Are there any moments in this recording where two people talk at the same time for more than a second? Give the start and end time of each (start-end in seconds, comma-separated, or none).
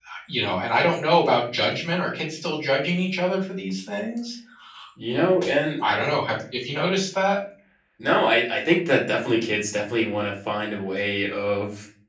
none